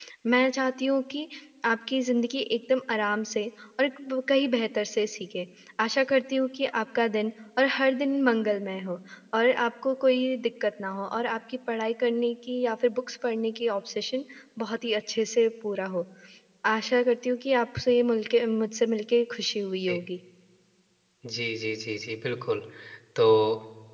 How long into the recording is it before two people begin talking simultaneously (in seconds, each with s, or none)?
none